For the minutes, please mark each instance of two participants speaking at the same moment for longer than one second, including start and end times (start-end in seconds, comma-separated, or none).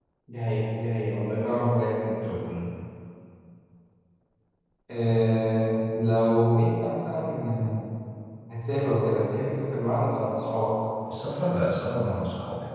none